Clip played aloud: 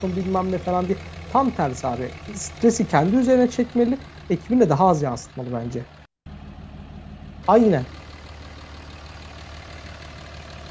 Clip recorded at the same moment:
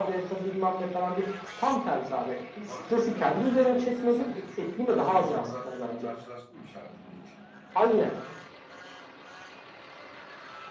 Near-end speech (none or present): present